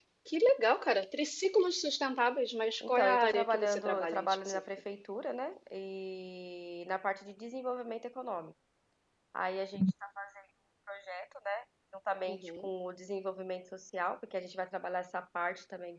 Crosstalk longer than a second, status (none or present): present